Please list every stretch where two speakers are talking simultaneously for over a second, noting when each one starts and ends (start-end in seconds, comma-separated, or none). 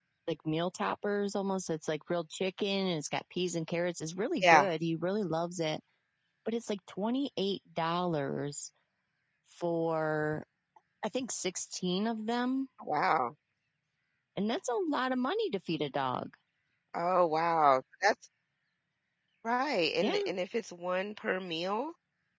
none